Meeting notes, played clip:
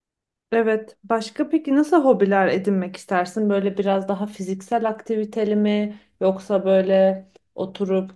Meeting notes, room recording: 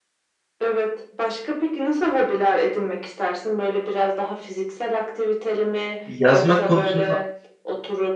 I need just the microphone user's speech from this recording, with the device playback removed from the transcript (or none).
Yazmak konusunda